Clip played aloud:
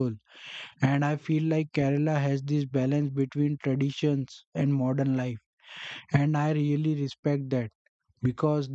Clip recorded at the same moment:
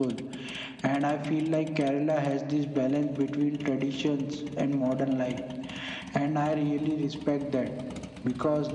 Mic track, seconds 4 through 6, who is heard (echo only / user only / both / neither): echo only